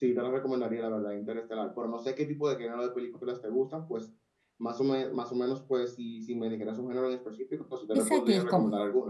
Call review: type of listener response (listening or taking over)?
taking over